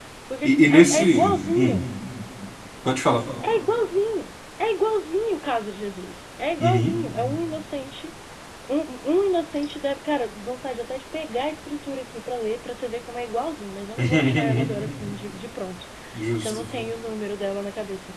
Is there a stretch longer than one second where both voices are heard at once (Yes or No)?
Yes